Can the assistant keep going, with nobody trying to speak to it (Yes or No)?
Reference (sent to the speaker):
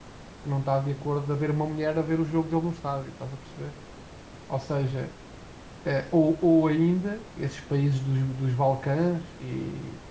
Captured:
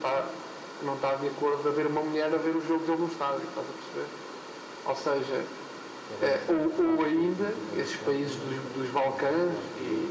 No